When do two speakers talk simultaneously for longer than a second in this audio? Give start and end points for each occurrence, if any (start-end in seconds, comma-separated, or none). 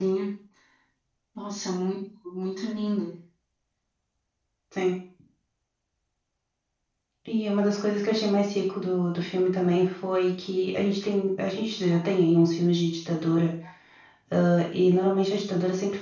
none